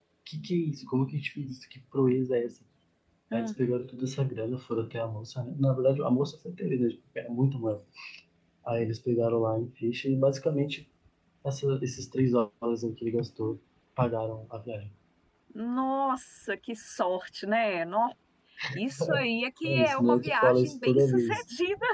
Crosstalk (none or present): present